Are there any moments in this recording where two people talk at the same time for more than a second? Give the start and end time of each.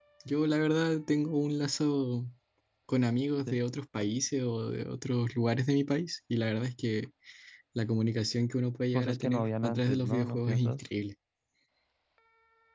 8.9-10.8

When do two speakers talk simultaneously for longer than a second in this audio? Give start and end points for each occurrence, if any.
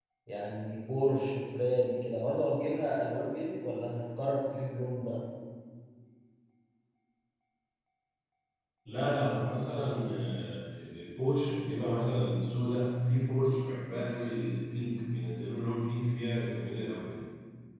none

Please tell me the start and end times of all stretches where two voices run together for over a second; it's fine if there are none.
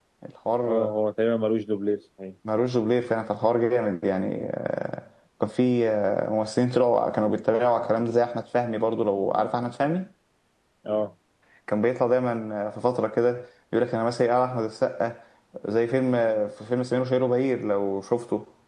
none

